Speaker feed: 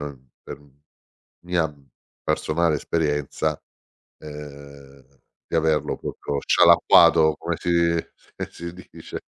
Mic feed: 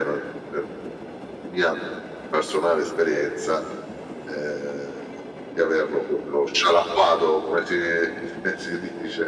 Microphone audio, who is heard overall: echo only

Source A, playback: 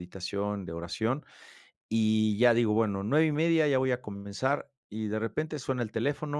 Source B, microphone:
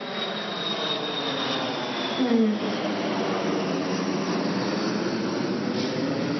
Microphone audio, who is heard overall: user only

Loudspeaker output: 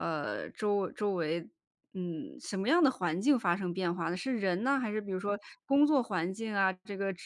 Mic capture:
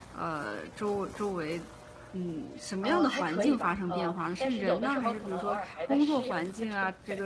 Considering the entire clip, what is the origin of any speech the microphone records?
both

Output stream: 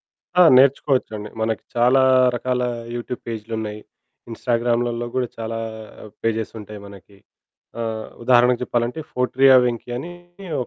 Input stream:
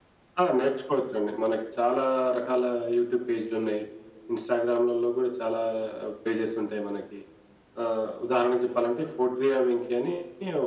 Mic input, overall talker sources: echo only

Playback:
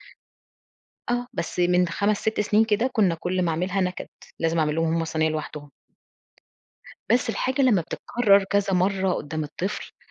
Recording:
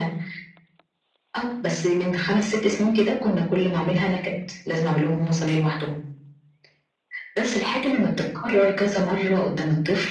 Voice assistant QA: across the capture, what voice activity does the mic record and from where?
echo only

